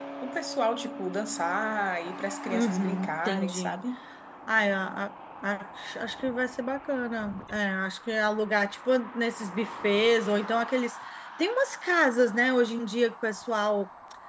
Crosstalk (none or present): present